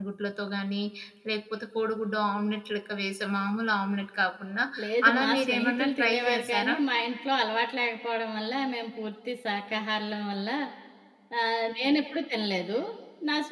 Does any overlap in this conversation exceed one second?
Yes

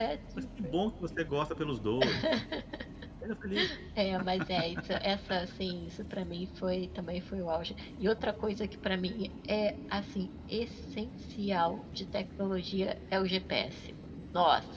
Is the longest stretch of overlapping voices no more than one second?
Yes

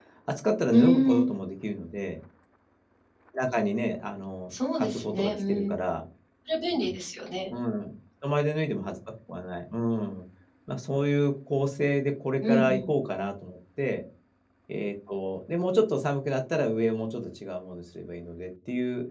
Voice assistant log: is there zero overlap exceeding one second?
No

